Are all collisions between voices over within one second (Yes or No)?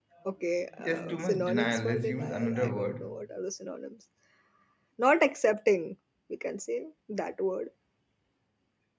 No